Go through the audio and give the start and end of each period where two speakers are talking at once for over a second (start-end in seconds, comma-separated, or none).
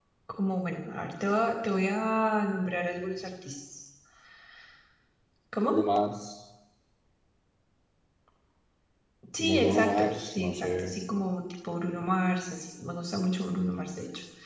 9.4-10.9